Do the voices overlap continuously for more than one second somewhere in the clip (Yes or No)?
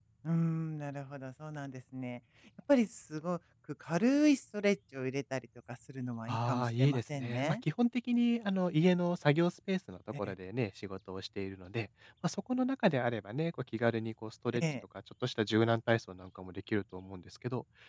Yes